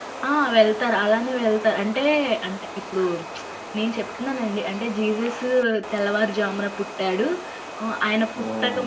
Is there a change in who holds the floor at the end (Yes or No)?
No